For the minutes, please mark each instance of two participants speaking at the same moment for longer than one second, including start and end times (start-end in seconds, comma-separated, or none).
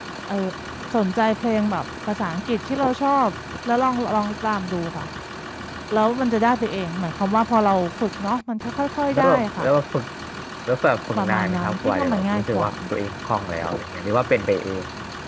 11.2-12.7